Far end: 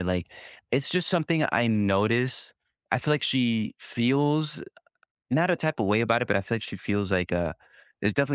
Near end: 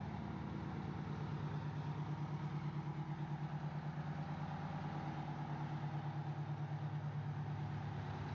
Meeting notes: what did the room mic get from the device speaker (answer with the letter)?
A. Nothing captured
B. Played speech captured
A